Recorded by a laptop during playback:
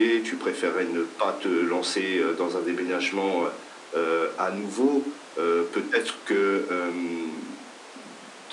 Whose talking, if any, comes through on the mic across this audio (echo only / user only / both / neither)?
echo only